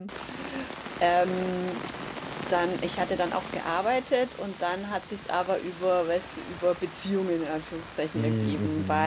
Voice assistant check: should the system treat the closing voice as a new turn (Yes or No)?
No